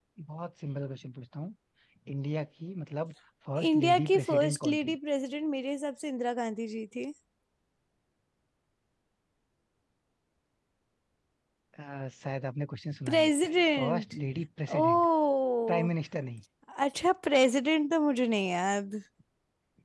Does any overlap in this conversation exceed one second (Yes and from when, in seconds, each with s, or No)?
Yes, from 3.7 s